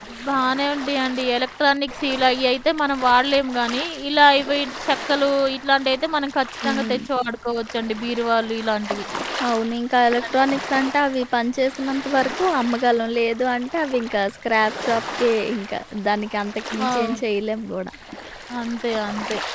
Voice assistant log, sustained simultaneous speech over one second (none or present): none